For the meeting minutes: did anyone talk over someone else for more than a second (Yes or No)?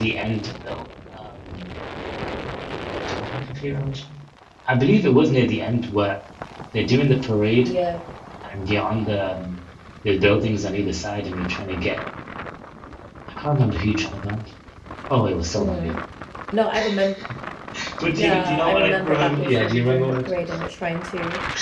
Yes